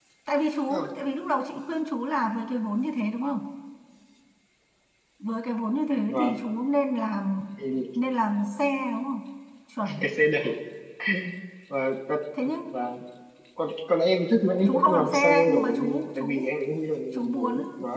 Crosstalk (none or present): present